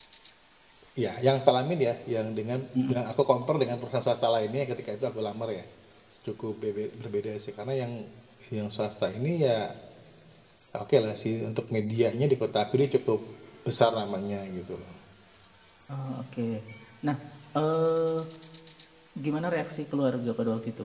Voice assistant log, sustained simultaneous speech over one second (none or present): none